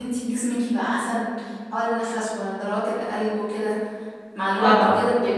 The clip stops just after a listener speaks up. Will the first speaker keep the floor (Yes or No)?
Yes